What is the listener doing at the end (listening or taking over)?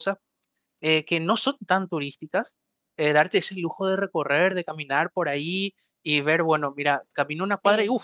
listening